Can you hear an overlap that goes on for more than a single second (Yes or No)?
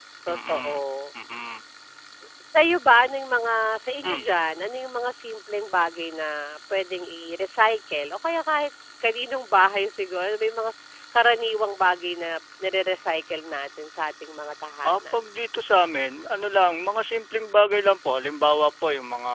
No